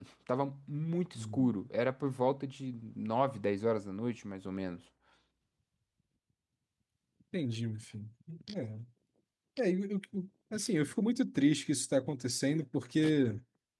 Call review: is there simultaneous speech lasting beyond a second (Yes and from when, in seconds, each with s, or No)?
No